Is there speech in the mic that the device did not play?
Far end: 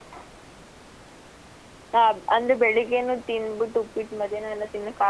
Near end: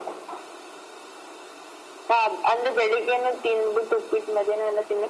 No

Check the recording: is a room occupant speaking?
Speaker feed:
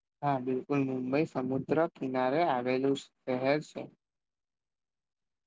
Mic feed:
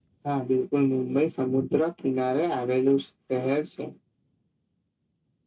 No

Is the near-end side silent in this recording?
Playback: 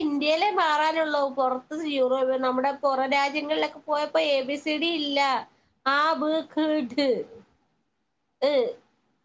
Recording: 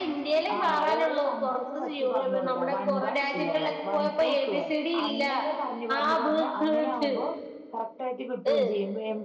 No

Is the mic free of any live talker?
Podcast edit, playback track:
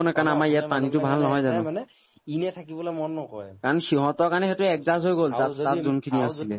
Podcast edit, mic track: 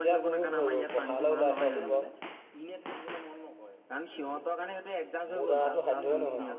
No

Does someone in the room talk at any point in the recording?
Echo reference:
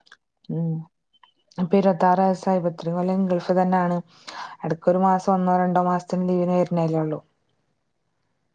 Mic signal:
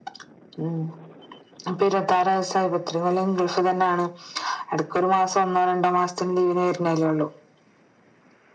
No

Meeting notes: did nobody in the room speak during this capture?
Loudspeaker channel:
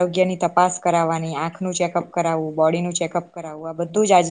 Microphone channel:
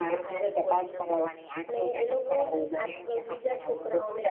No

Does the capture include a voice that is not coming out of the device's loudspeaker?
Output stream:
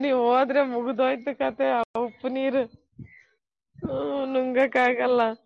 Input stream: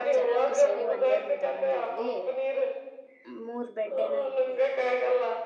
Yes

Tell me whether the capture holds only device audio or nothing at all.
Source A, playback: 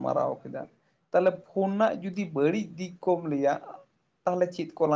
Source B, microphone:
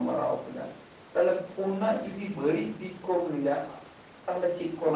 Yes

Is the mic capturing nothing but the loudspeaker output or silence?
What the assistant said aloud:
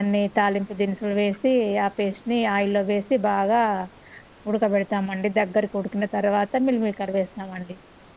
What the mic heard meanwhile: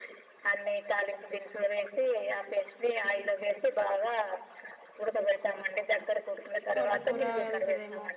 No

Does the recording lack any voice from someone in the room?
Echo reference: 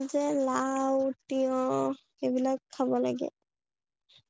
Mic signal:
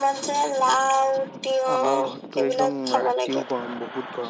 No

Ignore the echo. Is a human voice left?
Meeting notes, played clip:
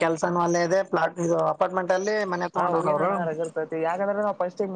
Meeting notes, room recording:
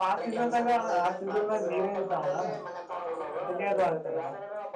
Yes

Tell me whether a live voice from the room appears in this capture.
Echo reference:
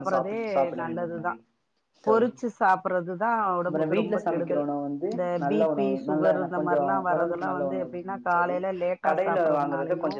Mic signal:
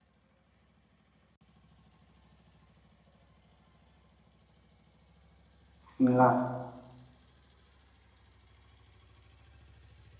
Yes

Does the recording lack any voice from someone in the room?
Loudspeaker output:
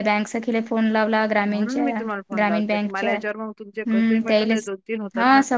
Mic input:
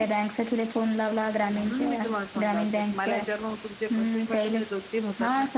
Yes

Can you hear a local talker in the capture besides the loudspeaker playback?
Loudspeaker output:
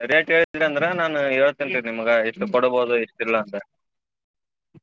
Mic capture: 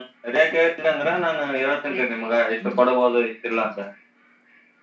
No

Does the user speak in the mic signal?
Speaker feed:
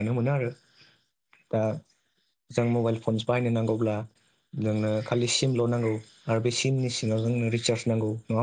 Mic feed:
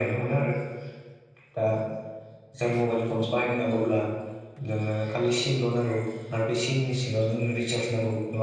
No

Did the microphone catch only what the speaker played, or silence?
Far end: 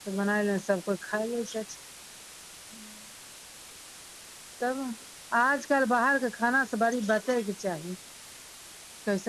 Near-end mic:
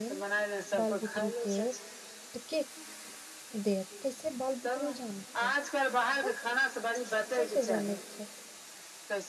No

